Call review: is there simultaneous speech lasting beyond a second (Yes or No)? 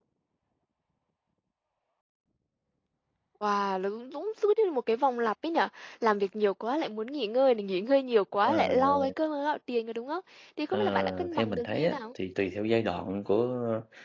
Yes